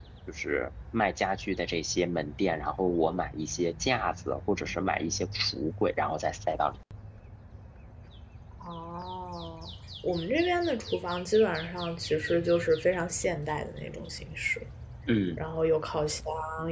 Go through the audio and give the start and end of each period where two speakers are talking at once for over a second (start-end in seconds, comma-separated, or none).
none